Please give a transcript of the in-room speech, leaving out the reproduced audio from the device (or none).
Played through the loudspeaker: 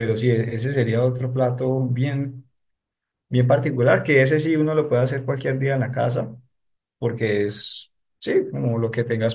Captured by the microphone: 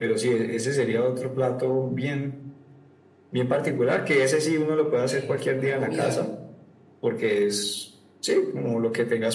eh, una comida